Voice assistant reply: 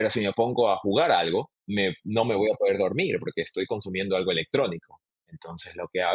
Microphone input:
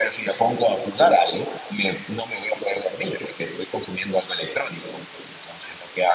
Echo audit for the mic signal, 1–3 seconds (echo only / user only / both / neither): echo only